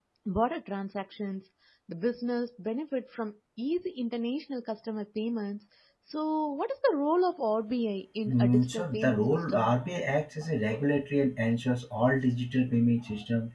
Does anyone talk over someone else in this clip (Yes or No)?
Yes